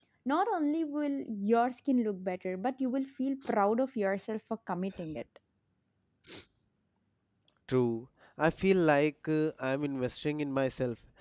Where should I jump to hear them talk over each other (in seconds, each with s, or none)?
none